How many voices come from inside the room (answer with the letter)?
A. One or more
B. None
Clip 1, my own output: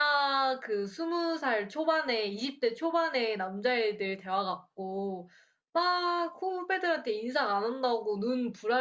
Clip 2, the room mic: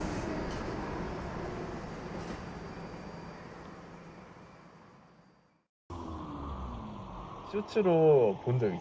A